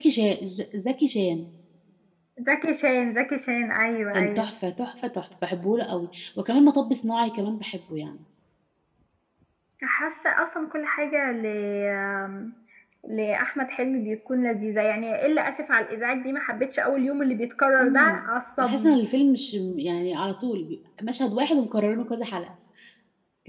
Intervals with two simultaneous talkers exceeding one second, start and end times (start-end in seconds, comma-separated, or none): none